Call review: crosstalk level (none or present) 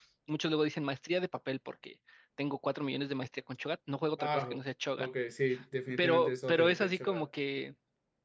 present